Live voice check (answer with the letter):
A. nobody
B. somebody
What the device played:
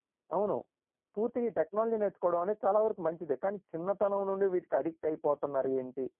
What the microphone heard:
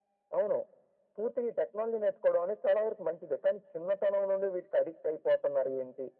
A